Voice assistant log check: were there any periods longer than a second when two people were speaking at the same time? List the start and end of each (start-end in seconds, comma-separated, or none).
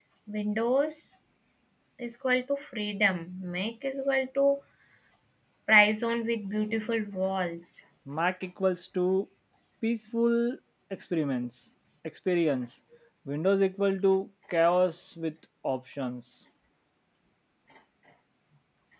none